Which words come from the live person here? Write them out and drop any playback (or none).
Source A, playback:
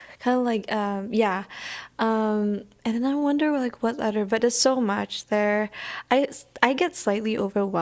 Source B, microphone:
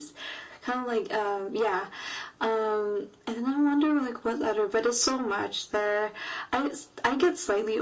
none